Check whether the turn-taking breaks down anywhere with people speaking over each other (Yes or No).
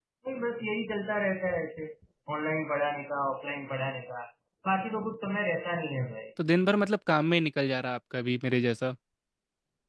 No